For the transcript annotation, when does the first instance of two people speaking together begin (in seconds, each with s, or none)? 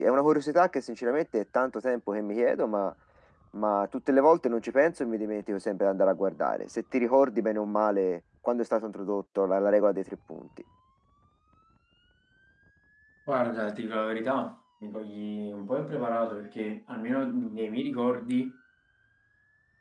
none